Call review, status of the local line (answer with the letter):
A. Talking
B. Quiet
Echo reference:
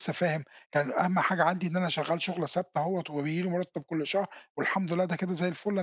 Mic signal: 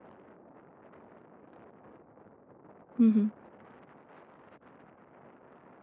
A